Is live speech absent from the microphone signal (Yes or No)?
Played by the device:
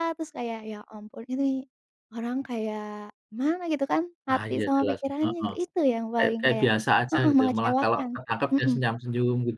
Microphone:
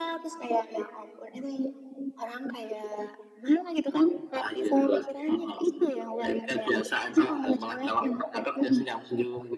Yes